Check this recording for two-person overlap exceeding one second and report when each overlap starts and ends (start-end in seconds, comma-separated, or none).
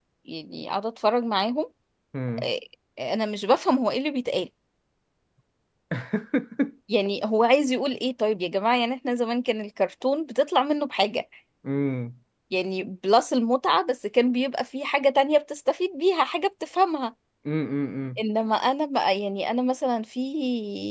none